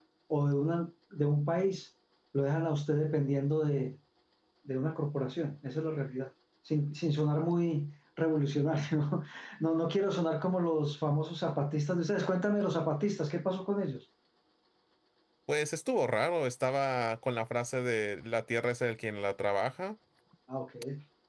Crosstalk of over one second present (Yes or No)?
No